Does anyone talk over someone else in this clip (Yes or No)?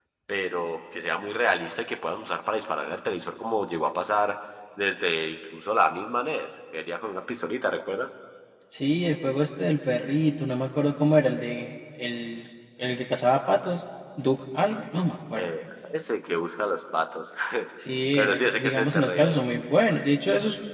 Yes